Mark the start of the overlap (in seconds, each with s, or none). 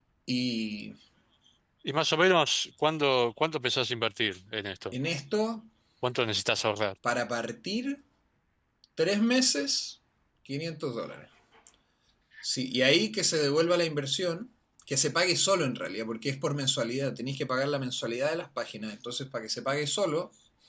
none